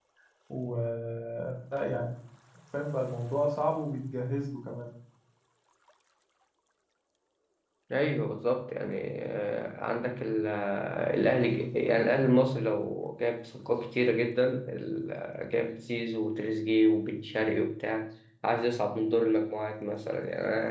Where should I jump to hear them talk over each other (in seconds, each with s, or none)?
none